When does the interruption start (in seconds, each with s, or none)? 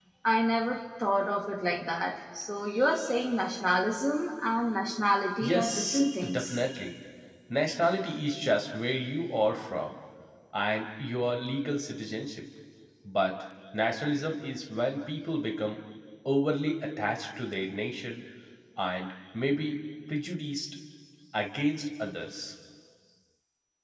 5.4 s